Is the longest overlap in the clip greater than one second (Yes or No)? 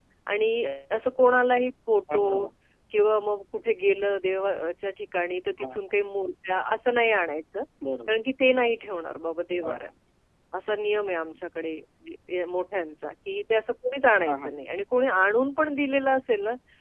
No